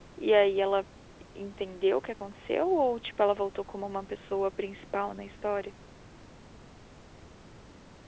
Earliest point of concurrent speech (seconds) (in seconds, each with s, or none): none